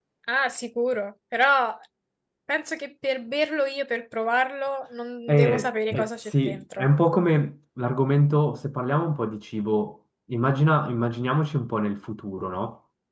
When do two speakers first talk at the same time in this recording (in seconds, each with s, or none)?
5.3 s